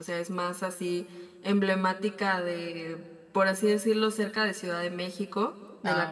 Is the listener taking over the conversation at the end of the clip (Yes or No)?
No